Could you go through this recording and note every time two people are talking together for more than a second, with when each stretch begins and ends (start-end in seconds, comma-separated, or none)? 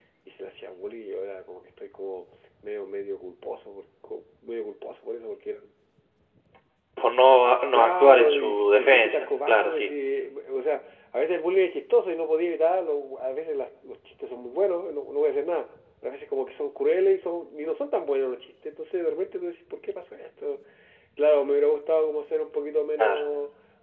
7.7-9.9